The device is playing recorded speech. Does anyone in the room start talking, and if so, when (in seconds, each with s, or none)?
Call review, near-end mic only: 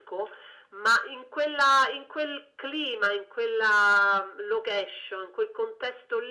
none